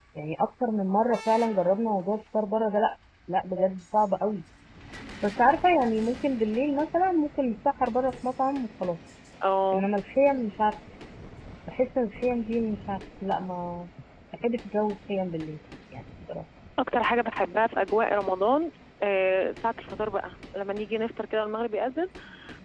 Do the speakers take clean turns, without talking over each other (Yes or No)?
Yes